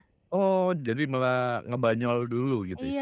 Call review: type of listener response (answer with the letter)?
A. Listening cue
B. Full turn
B